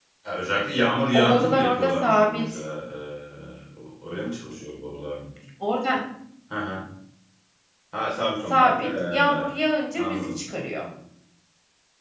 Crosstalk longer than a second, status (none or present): present